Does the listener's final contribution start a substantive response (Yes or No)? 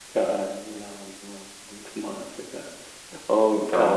No